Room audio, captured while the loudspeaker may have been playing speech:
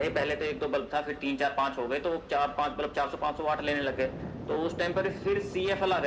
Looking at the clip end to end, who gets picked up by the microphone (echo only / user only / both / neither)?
echo only